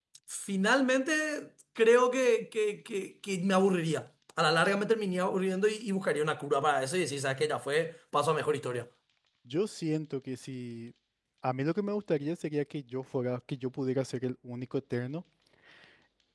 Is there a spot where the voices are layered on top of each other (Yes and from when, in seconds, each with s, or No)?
No